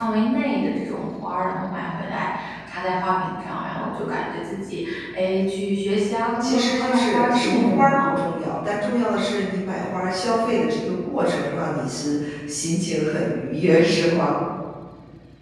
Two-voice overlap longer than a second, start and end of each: 6.4-8.1

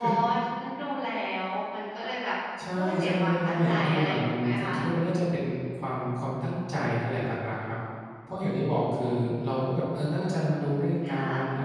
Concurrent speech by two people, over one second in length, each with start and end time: 2.8-4.7

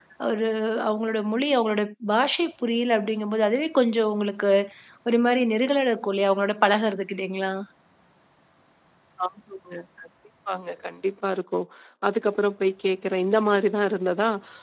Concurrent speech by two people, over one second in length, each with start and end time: none

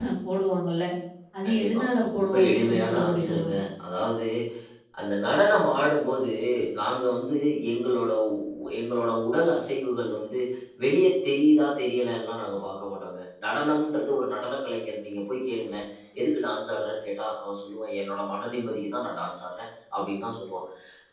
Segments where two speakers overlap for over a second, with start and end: 1.4-3.4

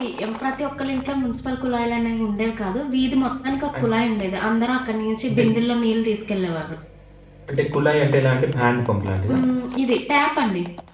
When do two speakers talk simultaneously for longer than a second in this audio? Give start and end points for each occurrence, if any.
none

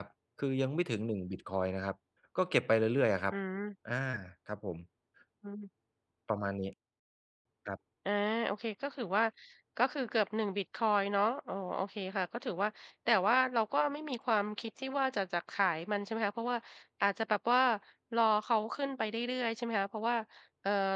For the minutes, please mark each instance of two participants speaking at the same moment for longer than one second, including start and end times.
none

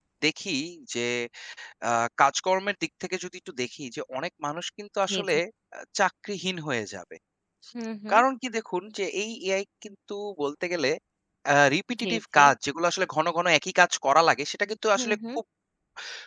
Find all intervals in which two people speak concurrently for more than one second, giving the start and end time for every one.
none

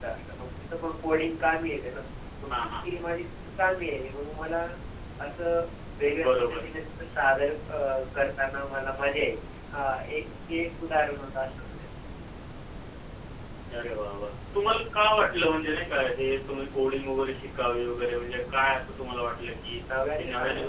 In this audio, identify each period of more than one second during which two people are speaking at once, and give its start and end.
none

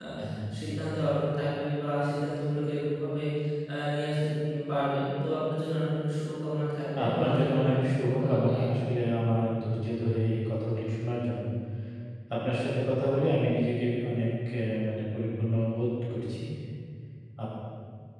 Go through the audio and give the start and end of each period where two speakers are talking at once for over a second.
7.1-8.7

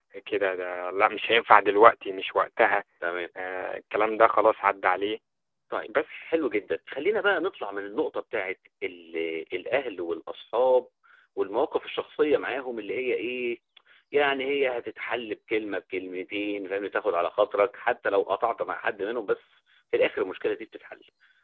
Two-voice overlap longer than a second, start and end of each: none

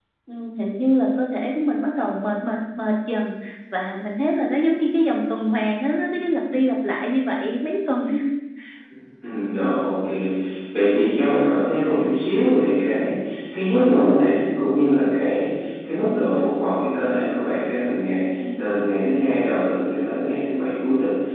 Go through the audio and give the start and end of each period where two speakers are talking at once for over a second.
none

